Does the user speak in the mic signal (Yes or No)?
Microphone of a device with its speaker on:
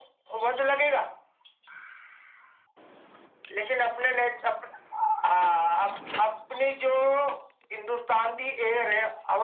No